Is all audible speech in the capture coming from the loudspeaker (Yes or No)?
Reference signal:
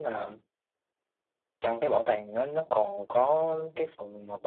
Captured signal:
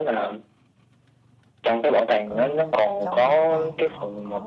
No